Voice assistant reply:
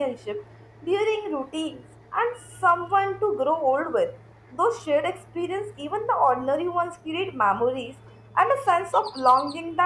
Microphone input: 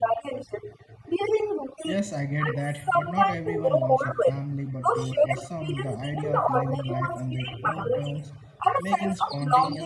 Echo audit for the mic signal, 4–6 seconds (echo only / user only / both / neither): both